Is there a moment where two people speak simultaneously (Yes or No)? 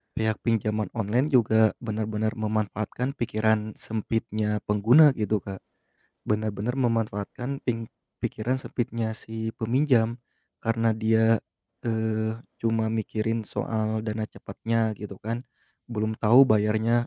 No